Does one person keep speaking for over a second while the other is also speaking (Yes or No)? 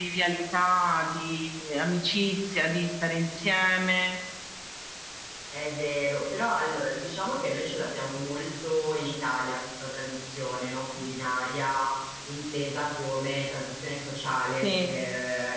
No